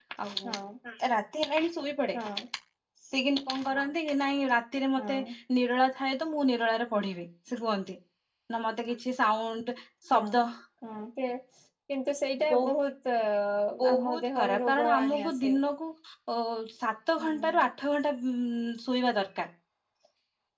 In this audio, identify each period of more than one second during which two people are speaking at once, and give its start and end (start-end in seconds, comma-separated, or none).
13.9-15.3